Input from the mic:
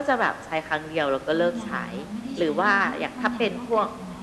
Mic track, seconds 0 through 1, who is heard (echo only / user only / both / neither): echo only